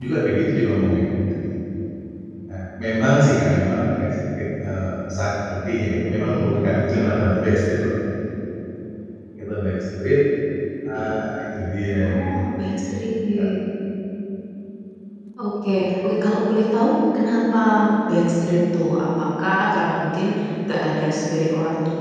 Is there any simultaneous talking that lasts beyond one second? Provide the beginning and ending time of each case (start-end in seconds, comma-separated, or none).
none